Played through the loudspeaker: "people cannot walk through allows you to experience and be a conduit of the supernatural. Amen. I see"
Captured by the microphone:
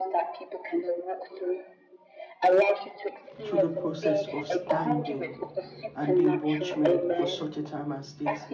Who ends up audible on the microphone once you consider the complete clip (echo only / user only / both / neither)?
both